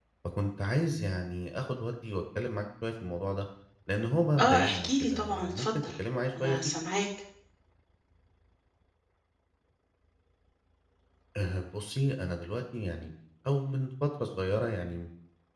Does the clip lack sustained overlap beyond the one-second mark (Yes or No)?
No